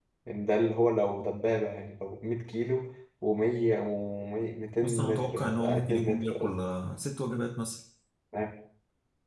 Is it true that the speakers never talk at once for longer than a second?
No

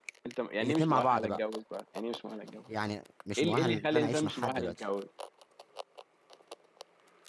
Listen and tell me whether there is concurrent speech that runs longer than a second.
Yes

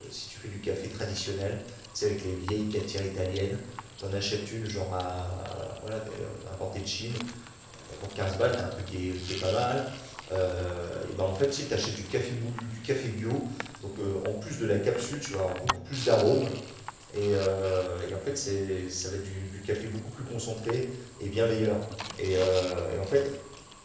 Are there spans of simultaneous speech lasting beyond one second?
No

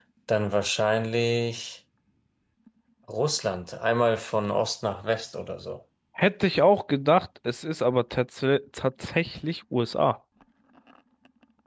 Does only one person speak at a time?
Yes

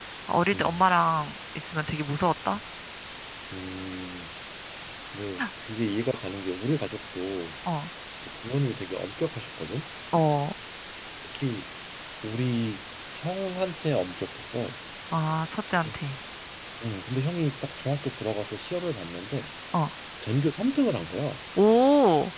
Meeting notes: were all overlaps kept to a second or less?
Yes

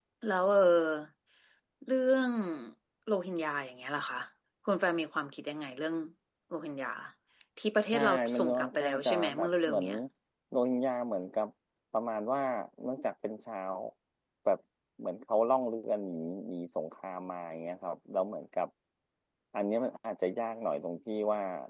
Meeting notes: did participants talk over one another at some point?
Yes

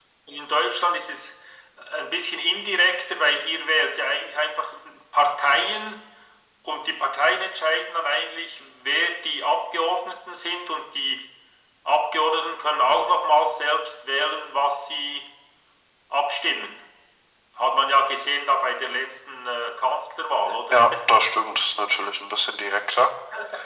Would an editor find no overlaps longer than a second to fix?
Yes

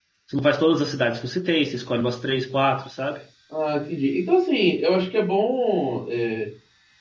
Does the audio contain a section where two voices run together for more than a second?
No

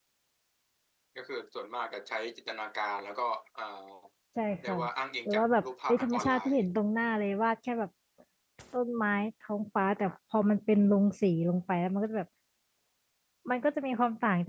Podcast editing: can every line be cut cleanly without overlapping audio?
No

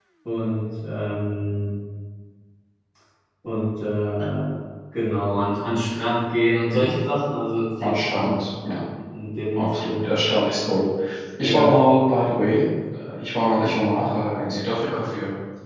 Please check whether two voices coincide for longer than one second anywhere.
No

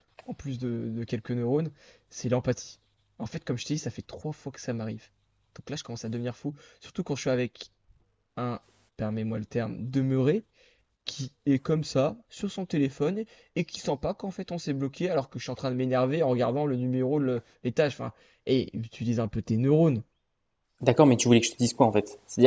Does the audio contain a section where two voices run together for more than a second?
No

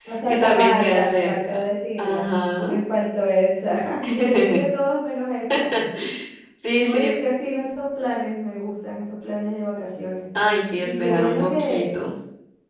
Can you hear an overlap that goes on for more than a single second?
Yes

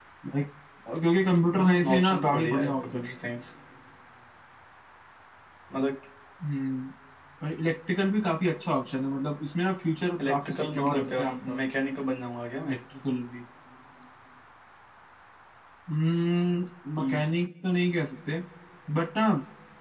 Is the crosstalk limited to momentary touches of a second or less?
No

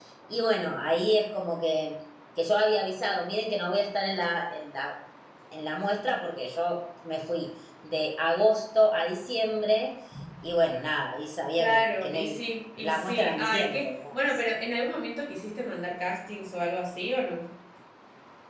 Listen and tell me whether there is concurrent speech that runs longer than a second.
Yes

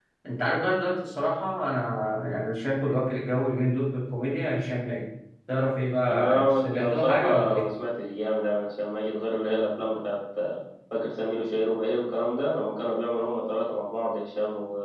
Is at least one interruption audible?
Yes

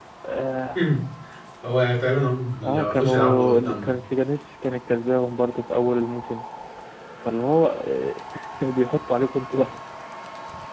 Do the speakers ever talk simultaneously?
Yes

